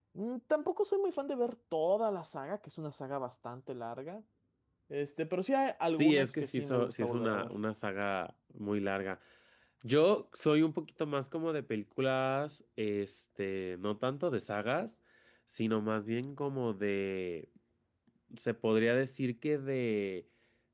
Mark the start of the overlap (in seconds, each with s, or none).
5.9 s